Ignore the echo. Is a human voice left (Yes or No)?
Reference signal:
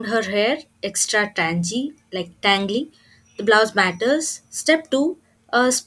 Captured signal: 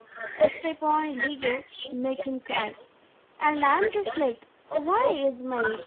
Yes